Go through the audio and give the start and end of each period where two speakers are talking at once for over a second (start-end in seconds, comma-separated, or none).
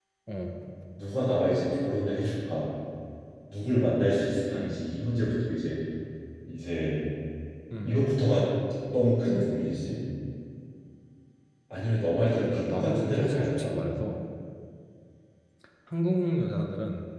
12.4-13.7